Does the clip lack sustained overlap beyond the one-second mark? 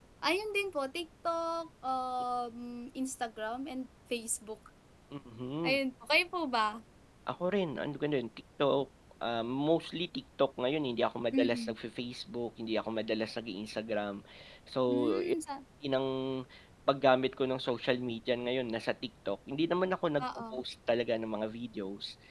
Yes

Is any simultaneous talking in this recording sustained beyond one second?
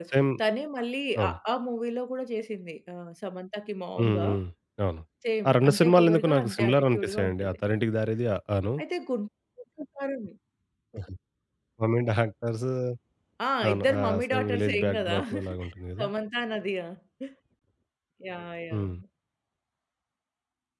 Yes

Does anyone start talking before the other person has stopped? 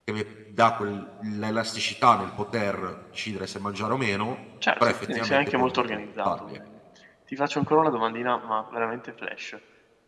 Yes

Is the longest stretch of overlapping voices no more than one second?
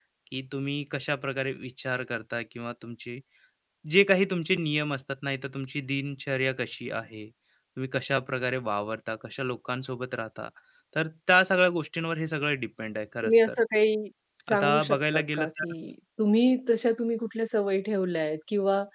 No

